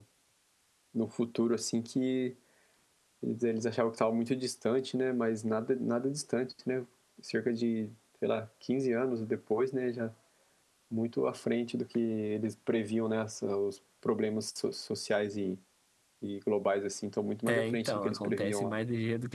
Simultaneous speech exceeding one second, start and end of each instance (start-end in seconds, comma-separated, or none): 17.5-18.7